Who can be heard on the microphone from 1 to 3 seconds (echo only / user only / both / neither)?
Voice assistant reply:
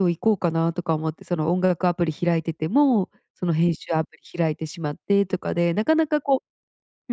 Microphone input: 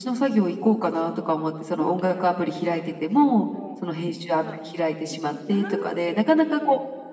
both